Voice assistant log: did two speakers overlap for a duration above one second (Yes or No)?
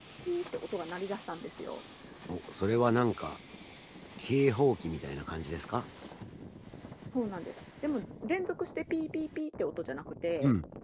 No